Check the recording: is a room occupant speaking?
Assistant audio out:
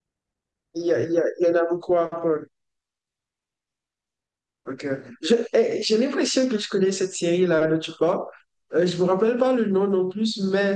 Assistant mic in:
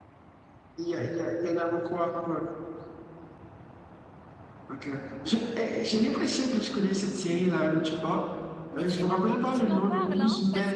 Yes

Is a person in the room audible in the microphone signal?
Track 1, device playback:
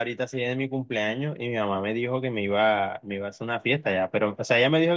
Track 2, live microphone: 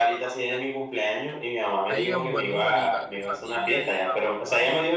Yes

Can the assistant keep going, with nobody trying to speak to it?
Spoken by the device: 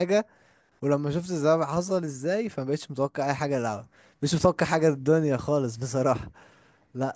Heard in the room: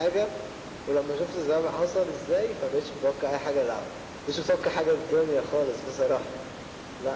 Yes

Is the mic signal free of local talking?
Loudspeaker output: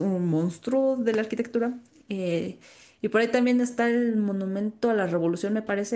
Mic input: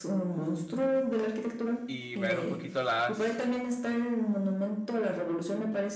No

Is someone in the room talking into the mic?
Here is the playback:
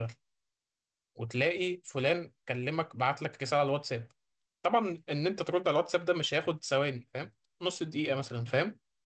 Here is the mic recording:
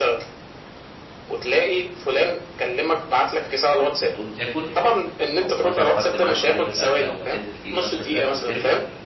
Yes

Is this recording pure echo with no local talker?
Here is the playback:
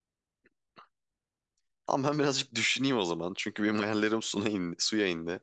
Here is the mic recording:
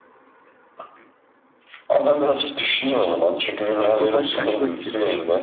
No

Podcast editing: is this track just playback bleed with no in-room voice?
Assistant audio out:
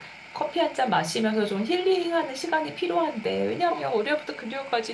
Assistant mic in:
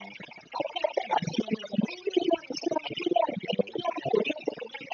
Yes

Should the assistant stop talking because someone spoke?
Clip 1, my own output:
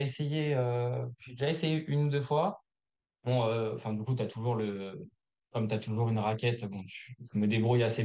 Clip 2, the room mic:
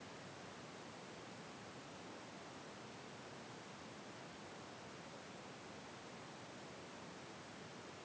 No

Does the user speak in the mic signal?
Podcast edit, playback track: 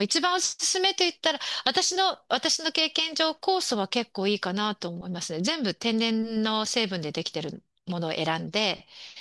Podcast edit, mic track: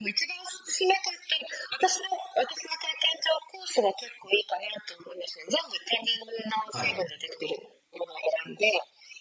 Yes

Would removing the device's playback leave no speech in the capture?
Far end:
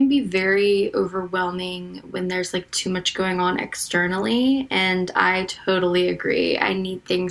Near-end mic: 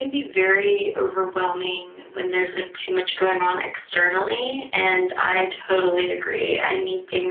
Yes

